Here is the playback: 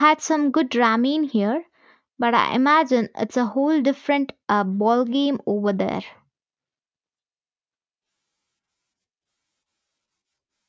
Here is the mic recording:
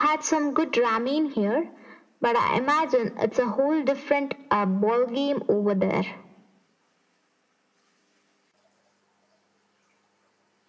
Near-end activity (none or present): none